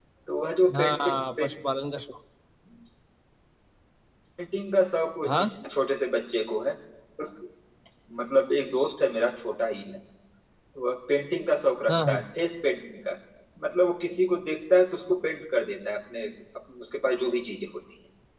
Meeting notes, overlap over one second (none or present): none